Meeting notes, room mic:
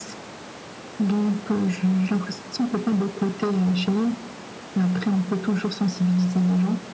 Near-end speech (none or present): none